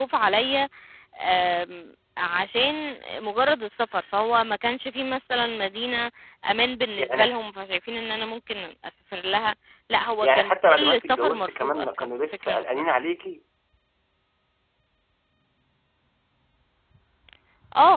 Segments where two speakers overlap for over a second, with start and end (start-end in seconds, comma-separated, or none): 10.2-12.8